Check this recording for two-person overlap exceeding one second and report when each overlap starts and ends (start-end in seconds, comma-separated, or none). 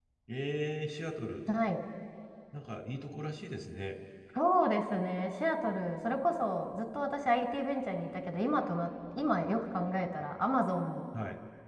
none